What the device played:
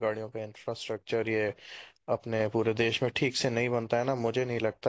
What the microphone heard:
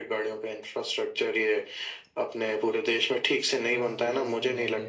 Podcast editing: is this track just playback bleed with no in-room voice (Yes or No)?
No